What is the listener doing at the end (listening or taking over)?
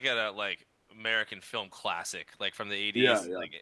listening